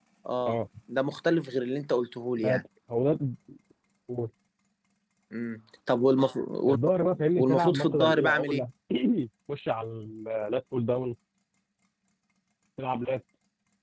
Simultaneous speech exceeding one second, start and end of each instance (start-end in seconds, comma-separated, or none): 7.4-8.6